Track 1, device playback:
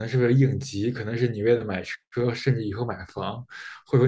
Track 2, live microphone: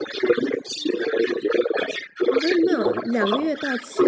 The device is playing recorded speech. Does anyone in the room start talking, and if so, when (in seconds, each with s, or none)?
2.3 s